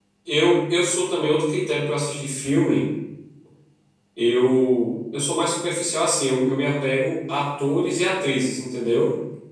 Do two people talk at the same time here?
No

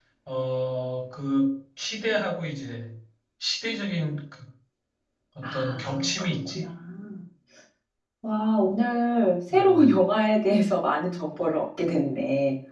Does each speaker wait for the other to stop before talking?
No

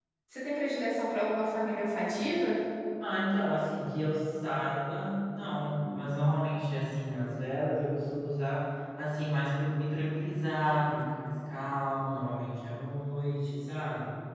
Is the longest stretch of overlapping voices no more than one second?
Yes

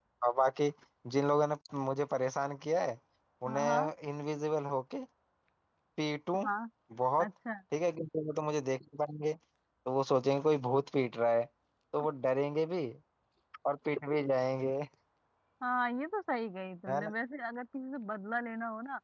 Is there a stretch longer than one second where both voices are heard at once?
No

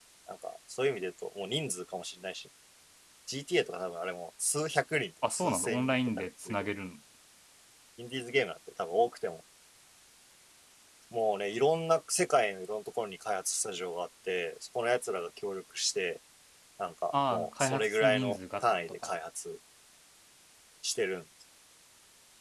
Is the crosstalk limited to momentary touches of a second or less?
No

